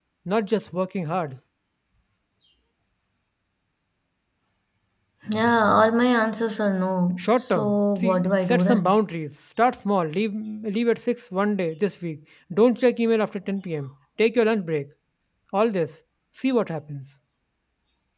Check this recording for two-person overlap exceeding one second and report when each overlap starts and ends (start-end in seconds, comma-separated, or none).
7.2-9.0